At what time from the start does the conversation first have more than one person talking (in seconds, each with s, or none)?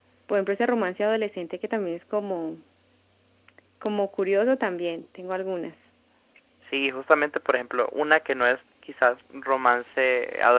none